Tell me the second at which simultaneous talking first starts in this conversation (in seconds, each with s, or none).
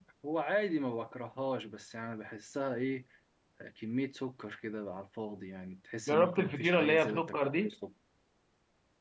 6.1 s